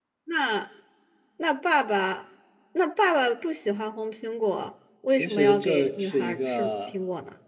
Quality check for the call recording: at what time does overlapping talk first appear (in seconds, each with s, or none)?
5.1 s